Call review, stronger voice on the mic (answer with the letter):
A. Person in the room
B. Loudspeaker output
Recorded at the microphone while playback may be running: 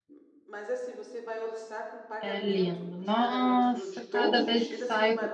A